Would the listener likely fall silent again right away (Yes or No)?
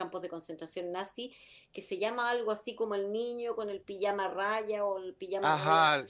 No